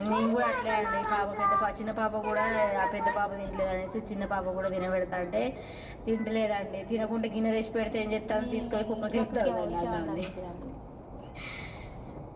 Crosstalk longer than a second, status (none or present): present